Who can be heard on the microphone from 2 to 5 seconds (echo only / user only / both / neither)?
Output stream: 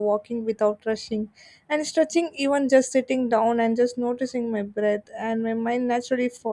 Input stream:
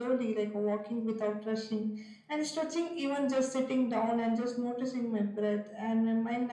echo only